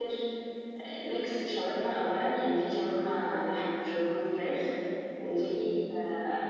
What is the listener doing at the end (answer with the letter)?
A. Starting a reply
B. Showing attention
B